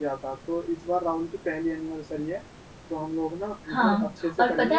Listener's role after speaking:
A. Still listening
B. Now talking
B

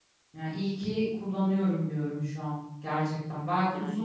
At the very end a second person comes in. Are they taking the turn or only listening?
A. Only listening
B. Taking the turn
A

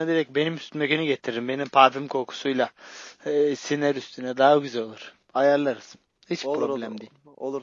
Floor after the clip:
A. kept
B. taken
B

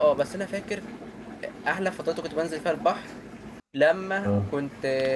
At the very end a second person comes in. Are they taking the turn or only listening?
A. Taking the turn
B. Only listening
B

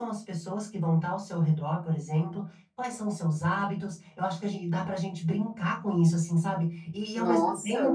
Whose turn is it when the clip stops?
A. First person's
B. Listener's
A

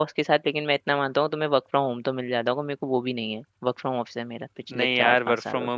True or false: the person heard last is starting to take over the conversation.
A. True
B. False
A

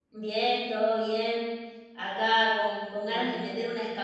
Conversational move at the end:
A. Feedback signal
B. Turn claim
A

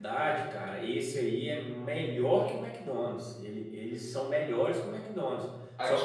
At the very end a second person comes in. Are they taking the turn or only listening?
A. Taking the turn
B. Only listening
A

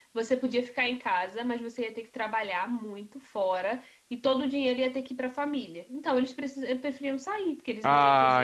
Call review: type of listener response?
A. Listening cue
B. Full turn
B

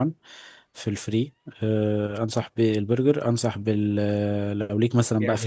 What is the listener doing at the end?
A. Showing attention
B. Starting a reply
B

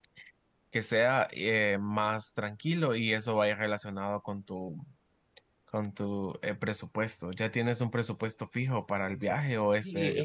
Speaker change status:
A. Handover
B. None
A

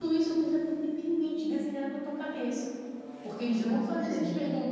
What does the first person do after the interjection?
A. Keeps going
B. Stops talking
A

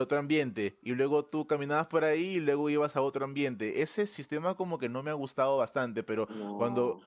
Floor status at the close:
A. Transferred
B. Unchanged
B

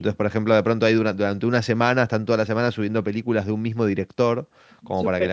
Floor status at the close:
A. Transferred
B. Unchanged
B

